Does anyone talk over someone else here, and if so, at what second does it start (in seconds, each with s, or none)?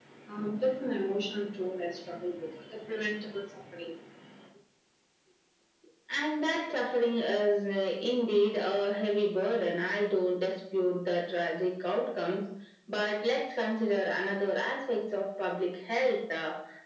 none